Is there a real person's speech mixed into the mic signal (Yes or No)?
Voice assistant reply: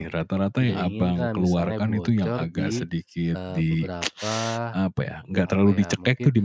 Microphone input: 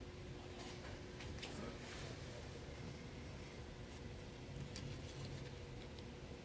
No